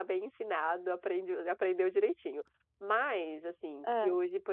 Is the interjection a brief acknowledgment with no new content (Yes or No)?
Yes